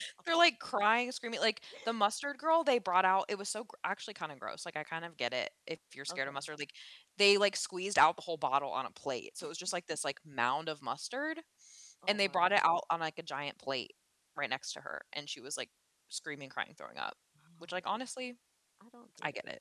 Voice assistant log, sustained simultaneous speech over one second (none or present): none